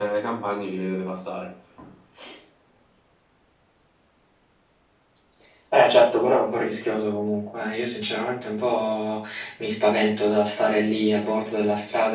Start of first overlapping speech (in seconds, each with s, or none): none